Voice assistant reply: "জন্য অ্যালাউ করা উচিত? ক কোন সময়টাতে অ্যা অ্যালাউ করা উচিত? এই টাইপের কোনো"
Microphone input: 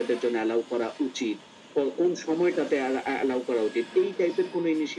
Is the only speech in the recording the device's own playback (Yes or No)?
Yes